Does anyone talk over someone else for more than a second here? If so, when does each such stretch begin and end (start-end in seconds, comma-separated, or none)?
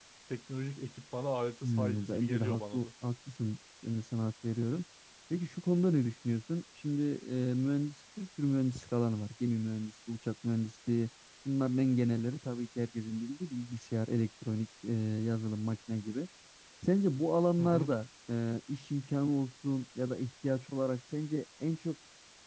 1.6-2.9